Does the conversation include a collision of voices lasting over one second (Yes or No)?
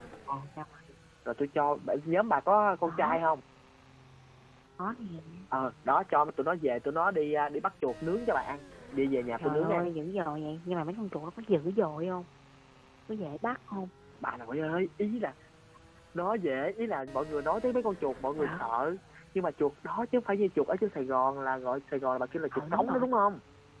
No